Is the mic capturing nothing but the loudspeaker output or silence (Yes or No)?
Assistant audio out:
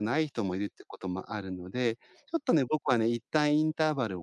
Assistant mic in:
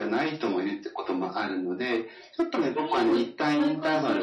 No